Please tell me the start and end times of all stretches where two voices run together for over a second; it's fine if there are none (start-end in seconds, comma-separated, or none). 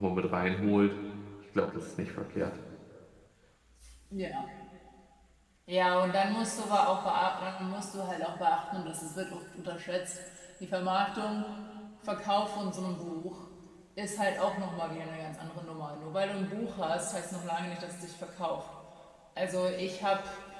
none